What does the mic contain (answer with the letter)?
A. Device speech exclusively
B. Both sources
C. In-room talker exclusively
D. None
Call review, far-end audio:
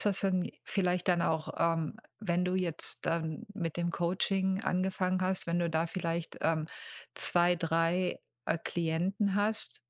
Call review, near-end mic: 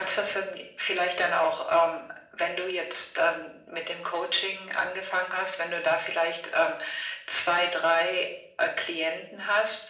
A